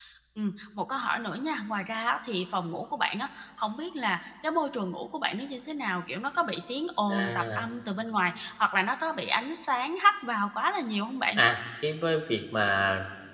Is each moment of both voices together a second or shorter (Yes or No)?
Yes